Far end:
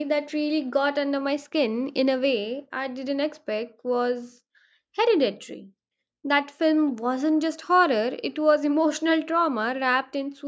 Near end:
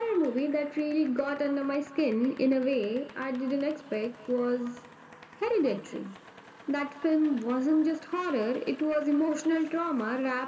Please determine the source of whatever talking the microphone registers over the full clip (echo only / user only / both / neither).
echo only